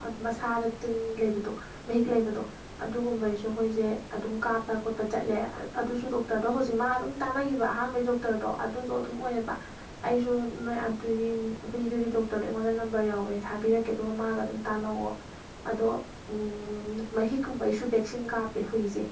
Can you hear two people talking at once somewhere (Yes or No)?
No